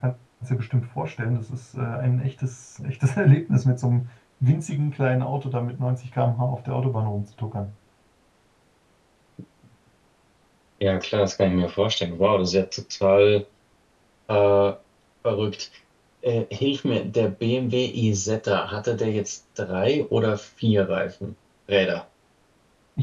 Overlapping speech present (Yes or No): No